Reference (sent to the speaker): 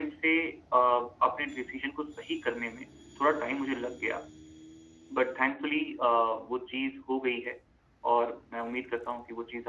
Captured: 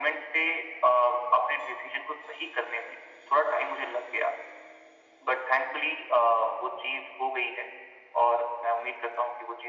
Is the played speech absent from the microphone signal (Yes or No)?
No